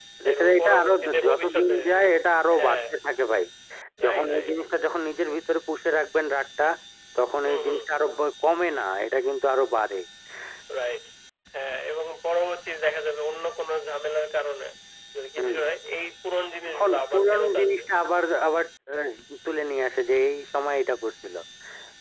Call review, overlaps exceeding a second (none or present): present